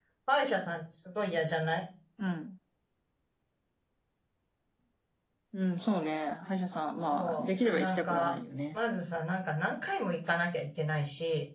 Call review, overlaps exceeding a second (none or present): present